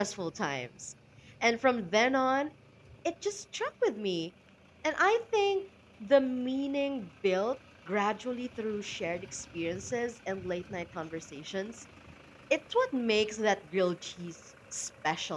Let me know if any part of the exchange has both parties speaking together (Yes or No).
No